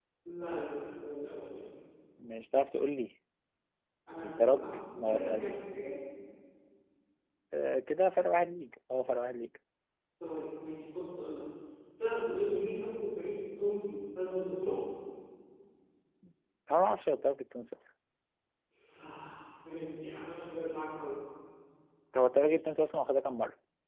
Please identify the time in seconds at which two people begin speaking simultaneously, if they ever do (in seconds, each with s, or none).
4.2 s